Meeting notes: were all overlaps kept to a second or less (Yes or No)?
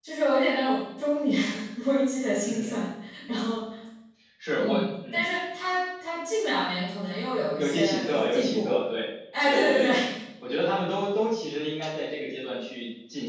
No